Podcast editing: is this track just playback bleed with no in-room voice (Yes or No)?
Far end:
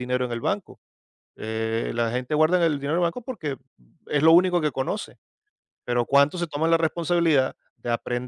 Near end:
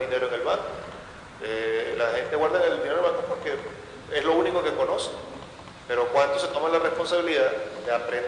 Yes